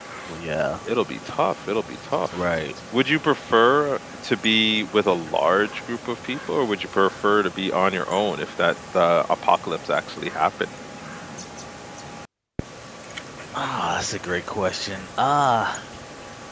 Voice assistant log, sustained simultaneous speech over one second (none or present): none